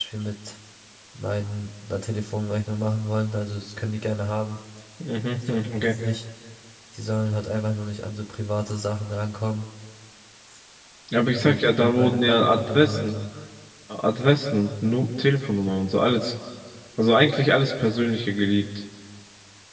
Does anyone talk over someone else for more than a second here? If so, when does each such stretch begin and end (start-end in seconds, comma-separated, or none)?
11.2-13.2